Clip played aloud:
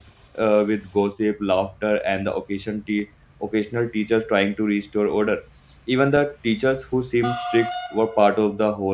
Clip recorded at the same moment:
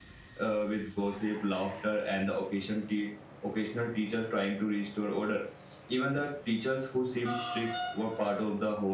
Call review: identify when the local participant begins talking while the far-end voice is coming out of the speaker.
none

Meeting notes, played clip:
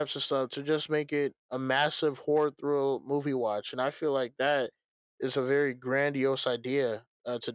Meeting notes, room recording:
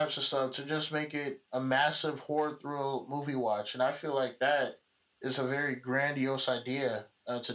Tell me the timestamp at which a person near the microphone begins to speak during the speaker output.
none

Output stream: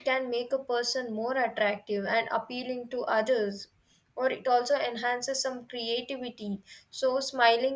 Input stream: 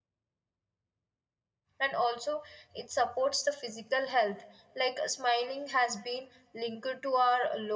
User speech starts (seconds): 2 s

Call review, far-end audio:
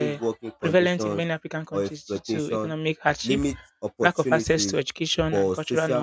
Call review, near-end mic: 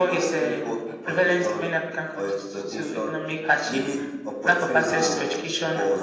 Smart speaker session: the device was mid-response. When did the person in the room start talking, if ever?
5 s

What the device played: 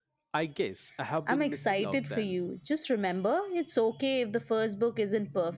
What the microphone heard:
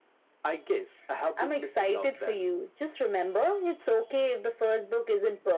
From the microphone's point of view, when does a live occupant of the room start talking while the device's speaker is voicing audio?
none

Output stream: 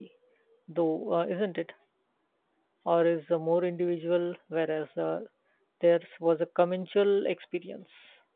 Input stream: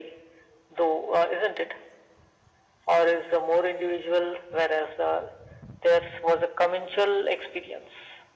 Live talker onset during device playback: none

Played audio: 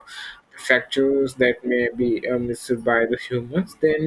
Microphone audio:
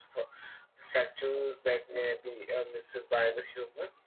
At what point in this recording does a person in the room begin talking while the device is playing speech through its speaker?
none

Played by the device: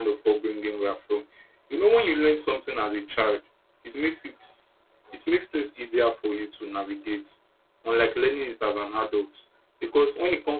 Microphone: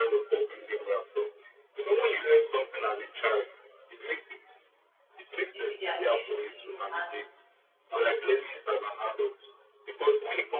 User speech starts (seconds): 6 s

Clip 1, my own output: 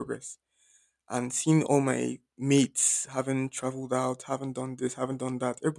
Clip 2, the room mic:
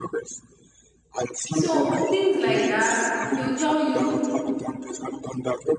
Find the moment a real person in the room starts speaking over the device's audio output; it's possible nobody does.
1 s

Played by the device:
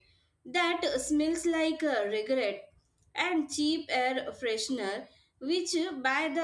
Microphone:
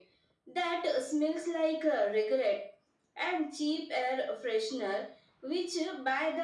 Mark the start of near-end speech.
none

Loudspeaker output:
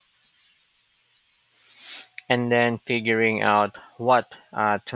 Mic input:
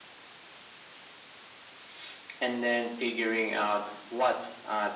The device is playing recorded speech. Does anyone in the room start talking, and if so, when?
none

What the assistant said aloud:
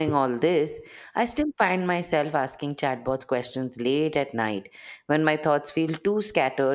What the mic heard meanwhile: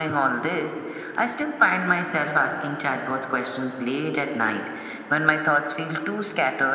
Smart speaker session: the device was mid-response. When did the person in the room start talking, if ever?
none

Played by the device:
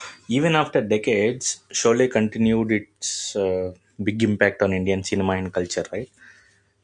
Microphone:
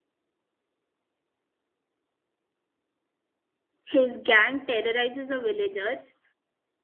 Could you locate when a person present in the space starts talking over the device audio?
4 s

